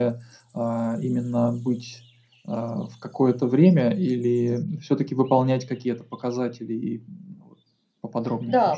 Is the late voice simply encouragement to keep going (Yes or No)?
No